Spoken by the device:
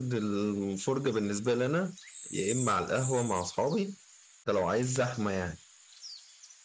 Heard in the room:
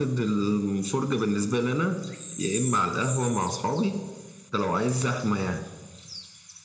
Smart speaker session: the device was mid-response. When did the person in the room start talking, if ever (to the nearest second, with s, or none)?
none